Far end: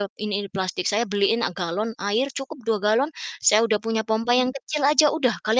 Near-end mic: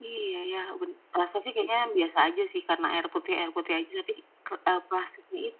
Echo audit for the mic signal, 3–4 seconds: user only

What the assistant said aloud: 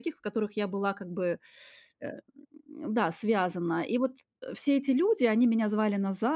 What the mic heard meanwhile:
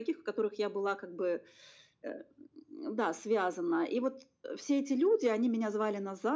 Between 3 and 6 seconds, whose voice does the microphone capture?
echo only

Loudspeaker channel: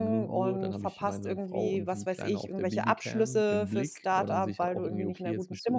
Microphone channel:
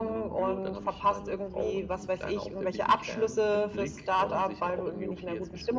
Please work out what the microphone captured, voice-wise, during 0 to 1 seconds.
echo only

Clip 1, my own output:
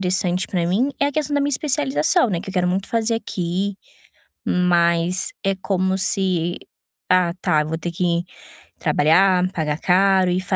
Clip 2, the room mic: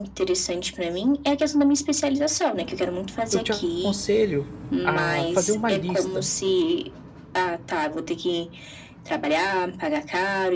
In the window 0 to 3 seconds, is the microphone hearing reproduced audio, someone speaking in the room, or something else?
echo only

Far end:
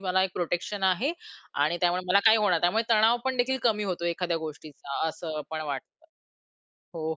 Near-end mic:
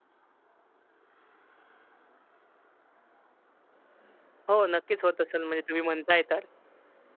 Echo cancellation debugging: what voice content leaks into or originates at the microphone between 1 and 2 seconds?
neither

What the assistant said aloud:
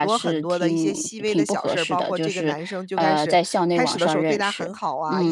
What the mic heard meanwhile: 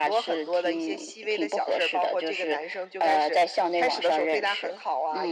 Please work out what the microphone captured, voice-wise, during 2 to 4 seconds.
echo only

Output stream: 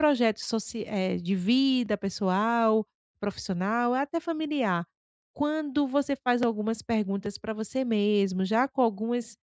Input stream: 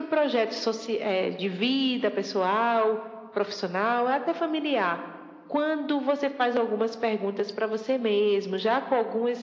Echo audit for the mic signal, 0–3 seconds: echo only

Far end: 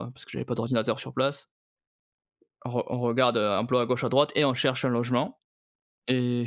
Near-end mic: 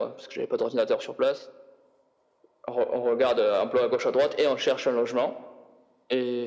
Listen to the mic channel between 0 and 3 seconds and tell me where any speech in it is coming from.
echo only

